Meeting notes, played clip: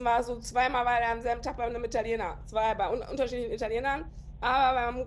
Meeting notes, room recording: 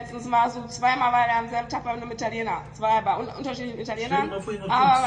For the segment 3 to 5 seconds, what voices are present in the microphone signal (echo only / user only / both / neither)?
both